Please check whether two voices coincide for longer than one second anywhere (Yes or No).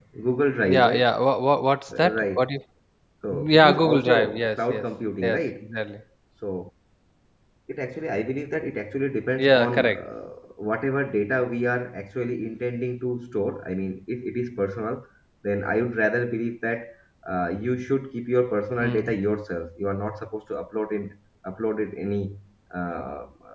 Yes